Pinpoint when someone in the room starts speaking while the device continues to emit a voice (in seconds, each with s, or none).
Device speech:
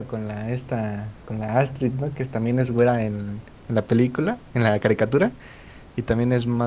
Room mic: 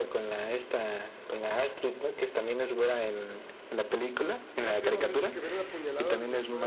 4.6 s